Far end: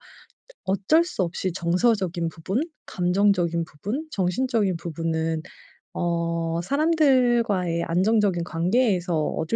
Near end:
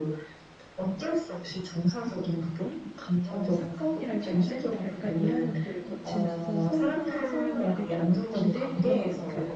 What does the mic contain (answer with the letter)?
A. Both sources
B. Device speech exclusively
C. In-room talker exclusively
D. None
A